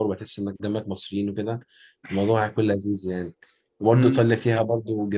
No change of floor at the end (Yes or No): Yes